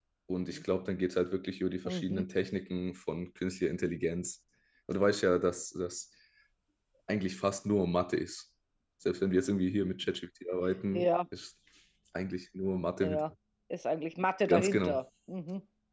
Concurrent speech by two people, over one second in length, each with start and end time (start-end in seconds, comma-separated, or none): none